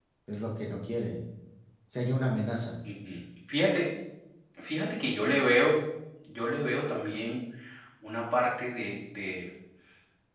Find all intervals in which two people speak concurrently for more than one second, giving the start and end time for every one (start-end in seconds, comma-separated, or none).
none